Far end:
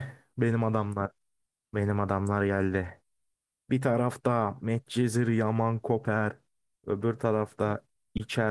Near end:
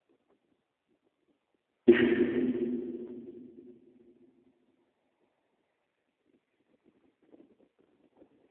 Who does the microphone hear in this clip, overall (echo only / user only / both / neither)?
user only